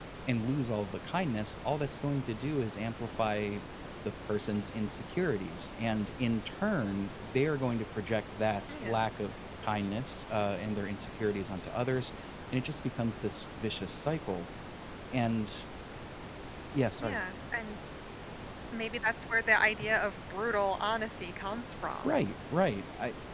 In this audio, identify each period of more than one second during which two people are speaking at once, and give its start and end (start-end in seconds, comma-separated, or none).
none